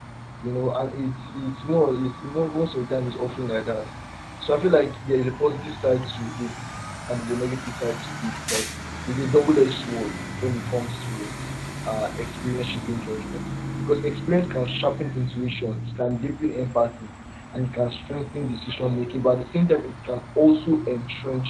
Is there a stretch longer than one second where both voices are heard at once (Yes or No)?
No